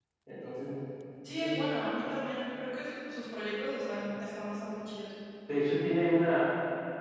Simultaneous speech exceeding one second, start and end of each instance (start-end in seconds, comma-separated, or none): none